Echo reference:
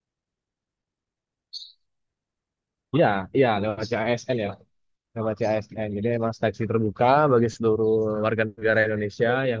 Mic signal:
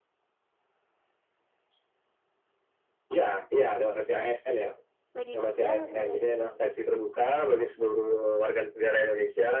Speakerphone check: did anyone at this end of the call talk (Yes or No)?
Yes